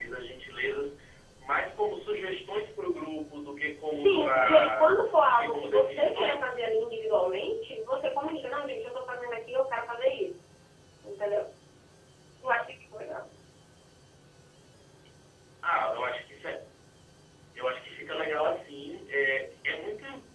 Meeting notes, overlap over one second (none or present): present